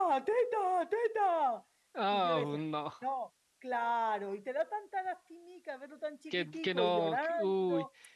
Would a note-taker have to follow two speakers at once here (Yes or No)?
Yes